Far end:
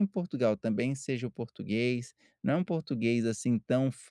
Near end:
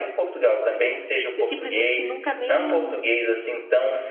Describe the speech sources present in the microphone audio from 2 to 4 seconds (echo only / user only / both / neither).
both